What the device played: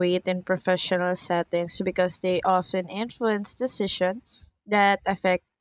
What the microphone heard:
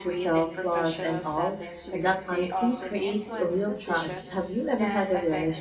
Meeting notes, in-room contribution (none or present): present